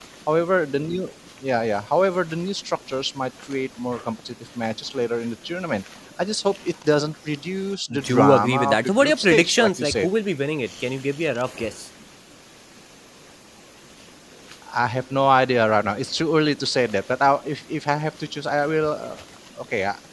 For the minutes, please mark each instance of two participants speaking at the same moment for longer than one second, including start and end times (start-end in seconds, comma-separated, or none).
8.1-10.1